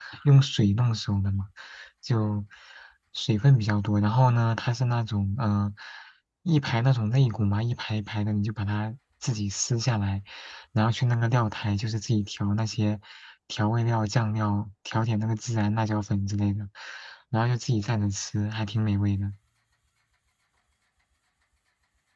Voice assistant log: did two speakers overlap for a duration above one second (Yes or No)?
No